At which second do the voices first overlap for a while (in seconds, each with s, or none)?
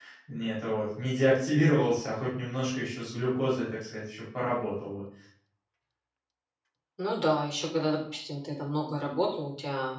none